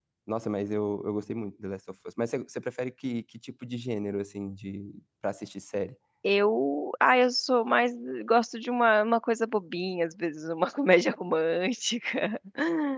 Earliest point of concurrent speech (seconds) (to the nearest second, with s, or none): none